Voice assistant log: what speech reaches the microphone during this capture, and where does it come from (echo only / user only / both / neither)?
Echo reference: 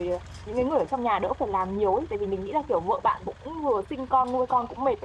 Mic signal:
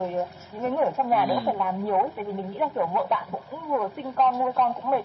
both